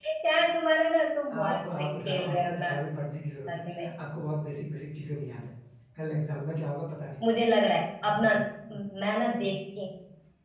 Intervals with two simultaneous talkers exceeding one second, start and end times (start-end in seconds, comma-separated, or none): 1.3-2.7